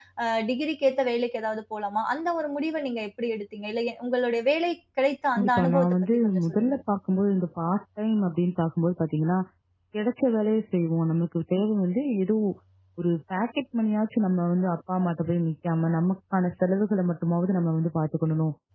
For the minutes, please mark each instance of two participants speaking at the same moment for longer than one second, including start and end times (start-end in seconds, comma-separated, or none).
5.4-6.8